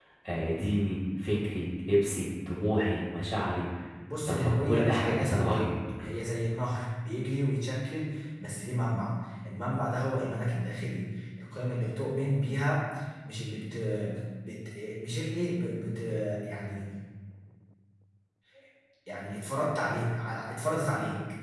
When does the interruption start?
4 s

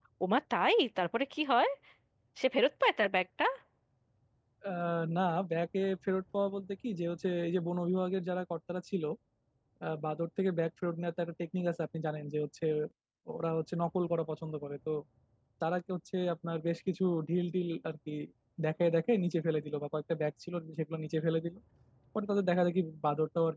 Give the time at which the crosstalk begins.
none

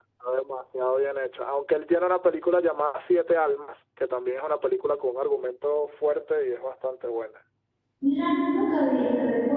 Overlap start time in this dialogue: none

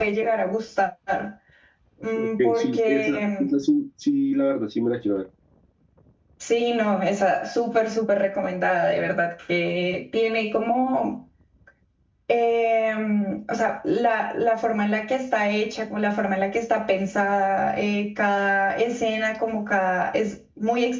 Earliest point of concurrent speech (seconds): 2 s

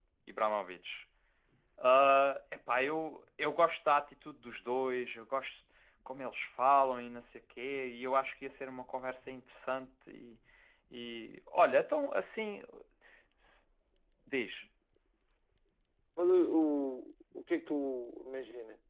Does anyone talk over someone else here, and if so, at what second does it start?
none

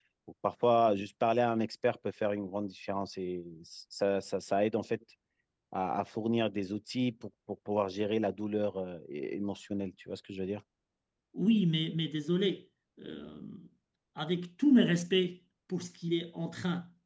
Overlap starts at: none

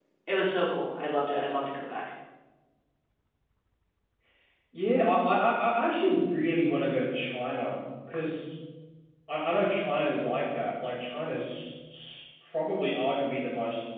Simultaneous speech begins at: none

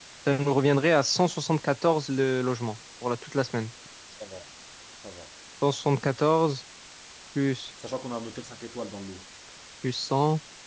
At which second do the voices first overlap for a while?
none

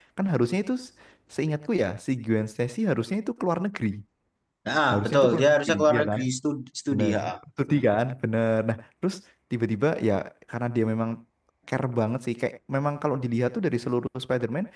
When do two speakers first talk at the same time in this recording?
5 s

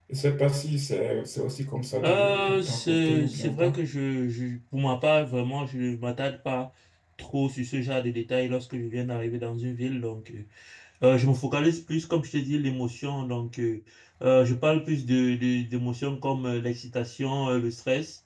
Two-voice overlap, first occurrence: 2 s

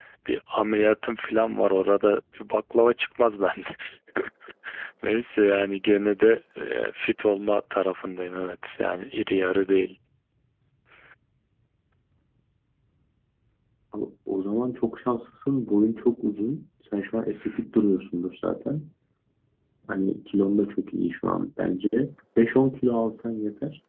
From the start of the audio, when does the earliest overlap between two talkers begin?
none

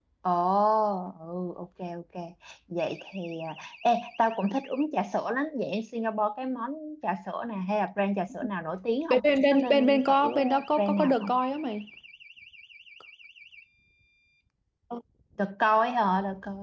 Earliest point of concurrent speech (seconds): 9 s

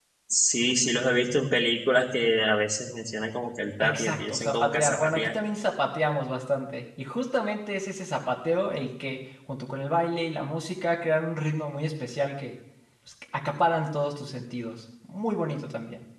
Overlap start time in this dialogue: 4 s

